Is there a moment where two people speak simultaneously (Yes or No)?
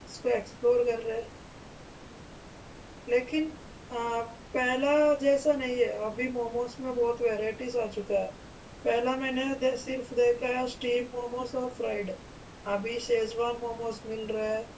No